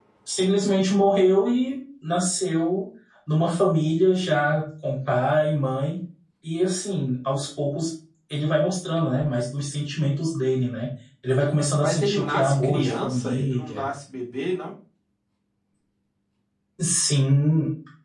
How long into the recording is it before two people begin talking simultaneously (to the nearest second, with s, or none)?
12 s